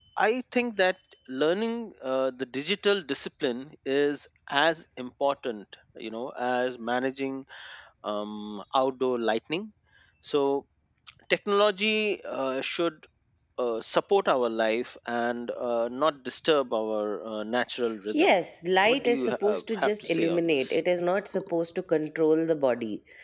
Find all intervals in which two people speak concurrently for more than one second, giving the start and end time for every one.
18.8-20.8

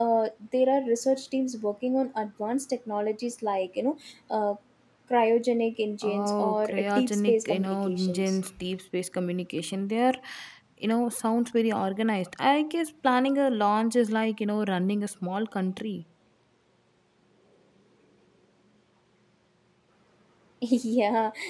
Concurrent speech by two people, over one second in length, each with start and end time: 6.0-8.4

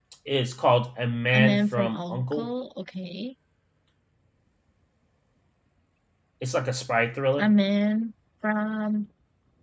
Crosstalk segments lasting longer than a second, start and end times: 1.3-2.5

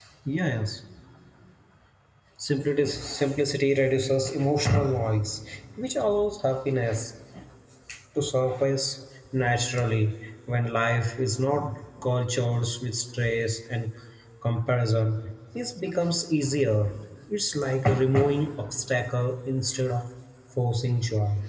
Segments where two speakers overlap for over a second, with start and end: none

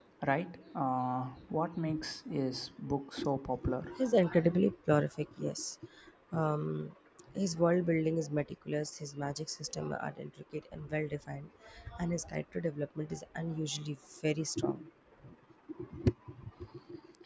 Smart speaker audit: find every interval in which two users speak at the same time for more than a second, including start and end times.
none

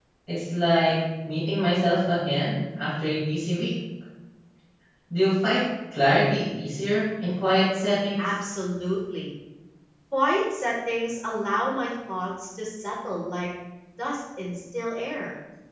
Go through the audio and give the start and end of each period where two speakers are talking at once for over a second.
none

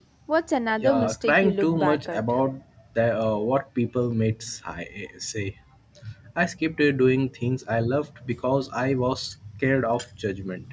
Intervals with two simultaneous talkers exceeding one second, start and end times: 0.8-2.2

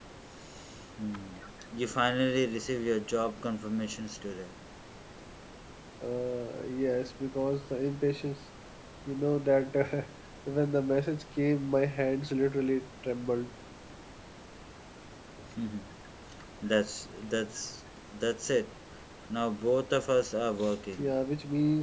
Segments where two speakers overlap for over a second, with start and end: none

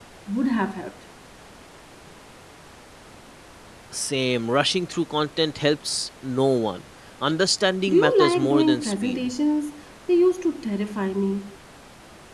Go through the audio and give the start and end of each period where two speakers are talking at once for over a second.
7.9-9.3

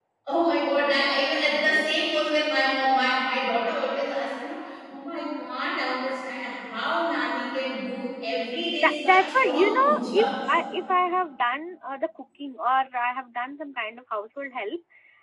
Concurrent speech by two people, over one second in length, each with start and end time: 8.8-10.5

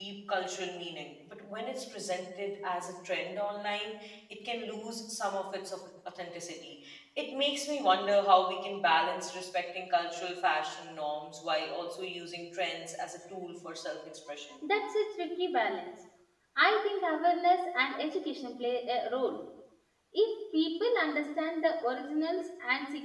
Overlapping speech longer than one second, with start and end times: none

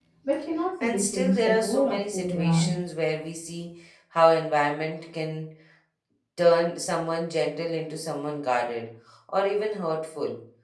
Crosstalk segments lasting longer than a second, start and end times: 0.8-2.7

